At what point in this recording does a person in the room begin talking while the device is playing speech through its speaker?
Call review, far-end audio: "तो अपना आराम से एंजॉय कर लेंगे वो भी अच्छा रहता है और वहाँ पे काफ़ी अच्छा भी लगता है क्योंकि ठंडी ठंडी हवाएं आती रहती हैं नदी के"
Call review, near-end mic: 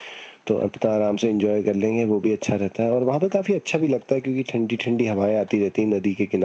none

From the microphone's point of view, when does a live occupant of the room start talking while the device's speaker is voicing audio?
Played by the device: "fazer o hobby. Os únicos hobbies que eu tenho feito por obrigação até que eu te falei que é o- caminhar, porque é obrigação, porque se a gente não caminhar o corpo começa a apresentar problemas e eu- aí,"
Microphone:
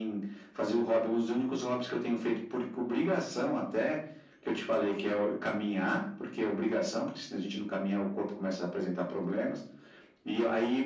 none

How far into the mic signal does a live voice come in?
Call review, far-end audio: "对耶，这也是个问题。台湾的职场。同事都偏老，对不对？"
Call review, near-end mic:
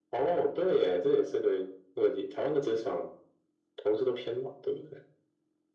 none

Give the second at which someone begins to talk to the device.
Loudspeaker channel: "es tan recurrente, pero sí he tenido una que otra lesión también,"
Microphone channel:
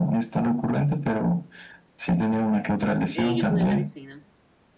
3.1 s

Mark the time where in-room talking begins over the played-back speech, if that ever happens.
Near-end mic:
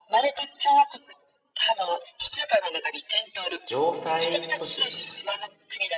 3.6 s

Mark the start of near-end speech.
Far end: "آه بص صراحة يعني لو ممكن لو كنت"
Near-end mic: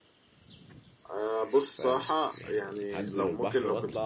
1.7 s

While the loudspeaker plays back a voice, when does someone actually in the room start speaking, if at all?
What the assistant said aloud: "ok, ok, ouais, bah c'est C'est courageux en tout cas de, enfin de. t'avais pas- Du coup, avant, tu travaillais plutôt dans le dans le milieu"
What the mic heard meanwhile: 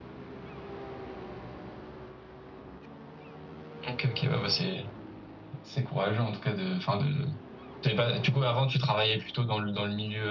none

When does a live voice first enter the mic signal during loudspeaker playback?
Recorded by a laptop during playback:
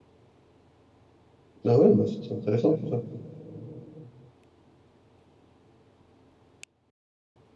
1.6 s

